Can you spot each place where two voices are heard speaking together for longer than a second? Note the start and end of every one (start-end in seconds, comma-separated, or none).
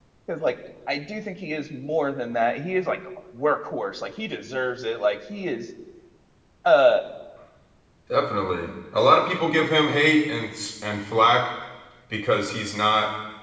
none